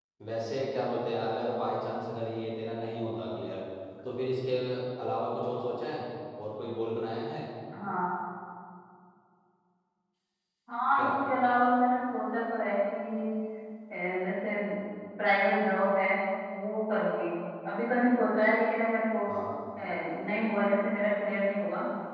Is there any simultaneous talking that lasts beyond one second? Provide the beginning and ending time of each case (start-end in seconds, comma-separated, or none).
none